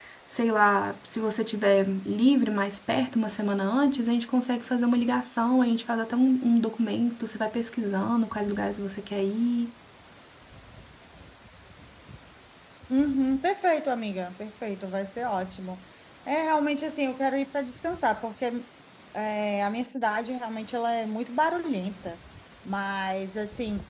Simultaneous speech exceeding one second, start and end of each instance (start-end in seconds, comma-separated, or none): none